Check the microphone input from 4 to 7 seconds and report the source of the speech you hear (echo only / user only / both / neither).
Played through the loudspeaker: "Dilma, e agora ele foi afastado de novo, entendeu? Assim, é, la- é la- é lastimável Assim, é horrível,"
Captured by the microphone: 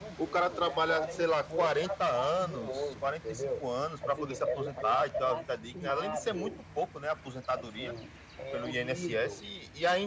both